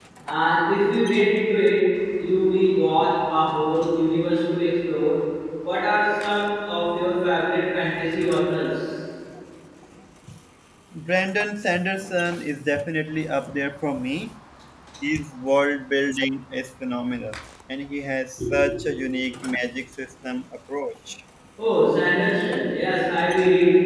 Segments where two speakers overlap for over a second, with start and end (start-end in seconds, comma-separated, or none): none